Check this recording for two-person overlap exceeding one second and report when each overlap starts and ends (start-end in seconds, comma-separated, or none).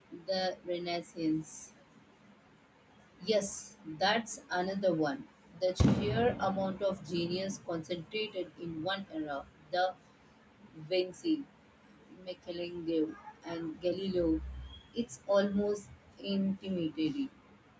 none